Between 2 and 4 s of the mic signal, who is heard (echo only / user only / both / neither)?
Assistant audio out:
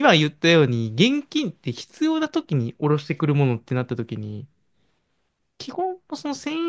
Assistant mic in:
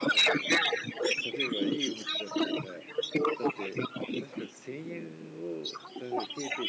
both